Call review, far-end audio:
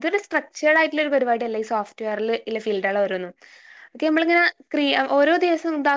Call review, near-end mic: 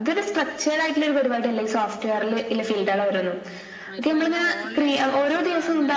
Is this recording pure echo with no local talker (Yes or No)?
No